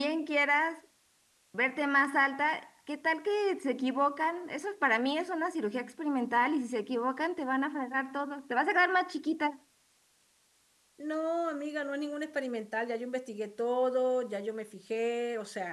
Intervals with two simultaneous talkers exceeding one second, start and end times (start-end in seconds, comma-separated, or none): none